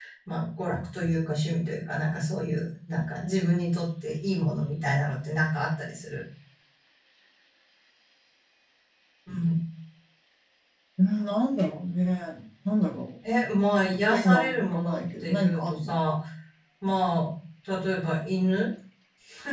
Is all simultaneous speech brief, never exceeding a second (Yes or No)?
No